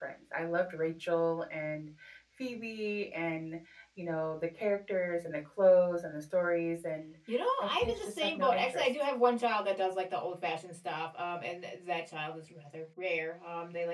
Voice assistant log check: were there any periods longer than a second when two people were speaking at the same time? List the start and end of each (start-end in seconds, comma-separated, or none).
7.6-8.8